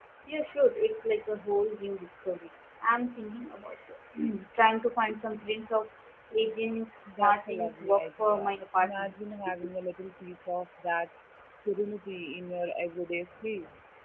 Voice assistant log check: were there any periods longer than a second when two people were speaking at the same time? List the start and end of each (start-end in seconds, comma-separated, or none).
7.1-9.1